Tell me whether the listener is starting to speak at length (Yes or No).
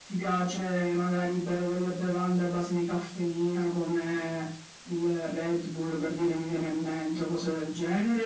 Yes